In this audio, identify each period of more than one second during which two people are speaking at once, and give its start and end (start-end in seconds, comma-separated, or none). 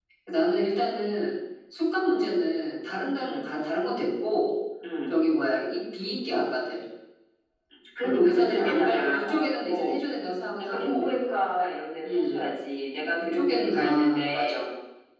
8.0-9.9, 13.3-14.6